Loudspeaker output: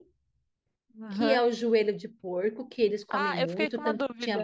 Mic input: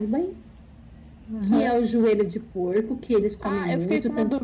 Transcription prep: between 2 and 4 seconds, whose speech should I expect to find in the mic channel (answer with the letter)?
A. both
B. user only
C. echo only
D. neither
C